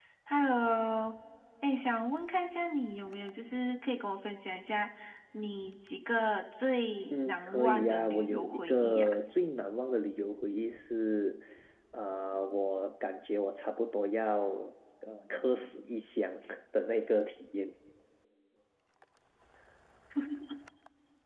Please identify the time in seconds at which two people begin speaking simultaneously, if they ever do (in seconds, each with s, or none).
7.1 s